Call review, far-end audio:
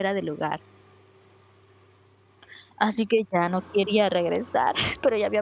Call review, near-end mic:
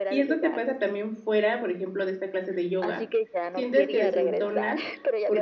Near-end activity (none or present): present